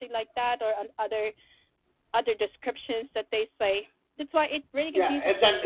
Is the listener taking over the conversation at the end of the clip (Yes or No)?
Yes